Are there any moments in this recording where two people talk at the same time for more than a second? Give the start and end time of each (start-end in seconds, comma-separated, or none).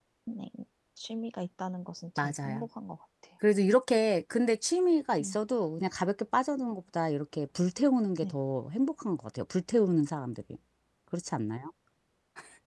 none